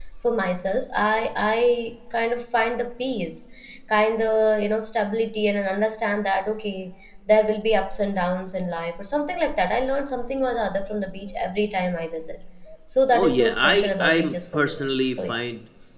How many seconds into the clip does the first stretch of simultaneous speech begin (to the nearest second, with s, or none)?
13 s